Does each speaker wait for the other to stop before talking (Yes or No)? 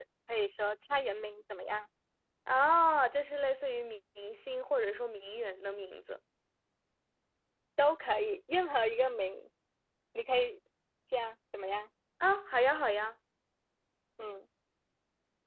Yes